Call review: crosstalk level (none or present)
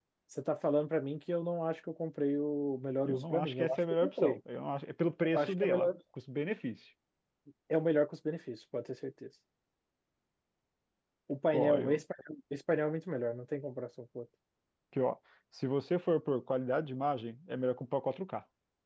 present